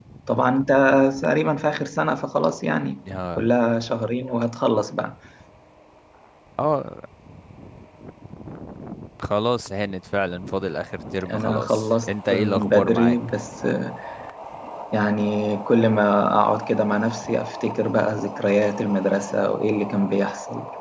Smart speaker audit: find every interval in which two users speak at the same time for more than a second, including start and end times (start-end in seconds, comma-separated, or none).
11.3-13.2